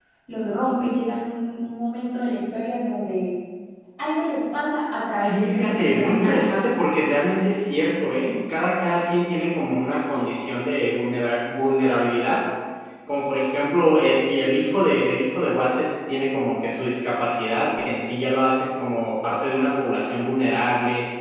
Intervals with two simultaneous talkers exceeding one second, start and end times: 5.2-6.5

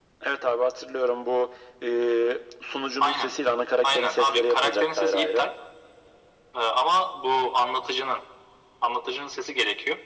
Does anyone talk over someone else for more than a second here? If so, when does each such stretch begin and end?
3.8-5.4

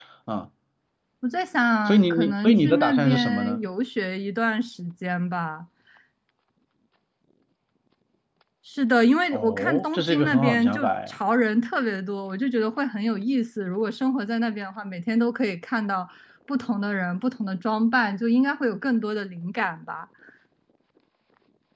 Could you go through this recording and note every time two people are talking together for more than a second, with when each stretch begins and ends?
1.9-3.6, 9.3-11.2

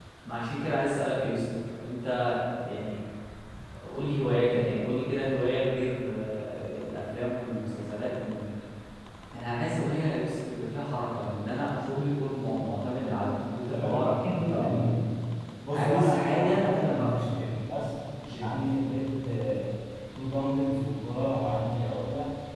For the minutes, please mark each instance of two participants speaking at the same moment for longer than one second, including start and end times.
13.7-15.0, 15.7-17.3

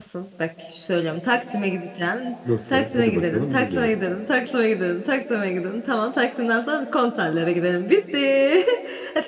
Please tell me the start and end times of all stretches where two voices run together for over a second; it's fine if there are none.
2.7-3.9

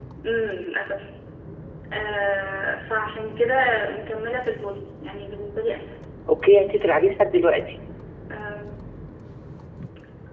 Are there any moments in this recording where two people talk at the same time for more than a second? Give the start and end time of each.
none

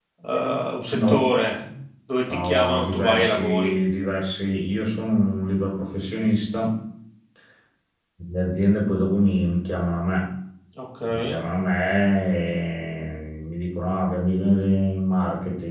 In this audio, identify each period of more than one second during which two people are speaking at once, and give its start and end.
2.3-3.7

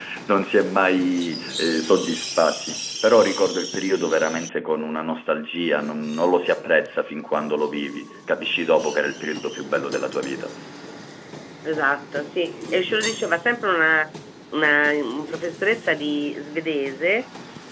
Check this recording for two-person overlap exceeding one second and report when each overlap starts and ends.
none

